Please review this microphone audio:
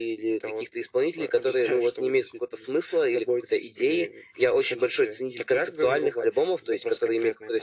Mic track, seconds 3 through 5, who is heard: echo only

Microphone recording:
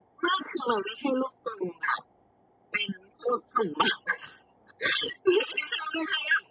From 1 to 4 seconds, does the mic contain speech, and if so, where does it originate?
echo only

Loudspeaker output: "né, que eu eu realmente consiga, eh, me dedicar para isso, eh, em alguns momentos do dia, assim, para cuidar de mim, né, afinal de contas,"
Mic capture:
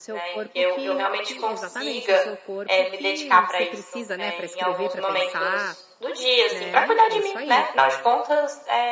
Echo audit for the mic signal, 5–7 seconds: both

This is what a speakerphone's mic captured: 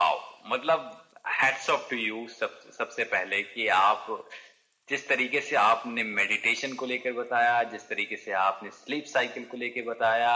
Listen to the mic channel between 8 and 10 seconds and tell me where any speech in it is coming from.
echo only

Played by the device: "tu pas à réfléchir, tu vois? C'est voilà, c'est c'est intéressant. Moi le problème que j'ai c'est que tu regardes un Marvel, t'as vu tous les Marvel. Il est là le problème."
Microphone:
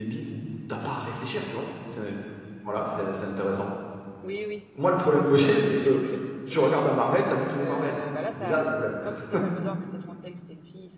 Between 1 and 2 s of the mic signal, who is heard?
echo only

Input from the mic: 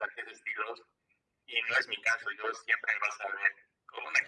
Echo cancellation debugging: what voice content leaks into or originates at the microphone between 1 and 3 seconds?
echo only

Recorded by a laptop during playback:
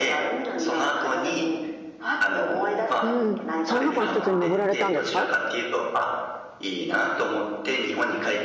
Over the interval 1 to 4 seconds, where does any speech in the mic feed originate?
both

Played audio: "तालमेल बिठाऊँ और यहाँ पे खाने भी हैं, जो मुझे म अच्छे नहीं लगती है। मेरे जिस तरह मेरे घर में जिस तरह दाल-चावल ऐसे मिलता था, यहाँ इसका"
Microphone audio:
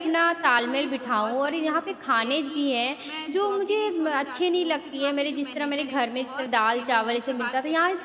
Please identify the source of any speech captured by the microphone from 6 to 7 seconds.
both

